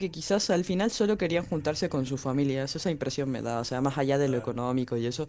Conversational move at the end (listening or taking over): listening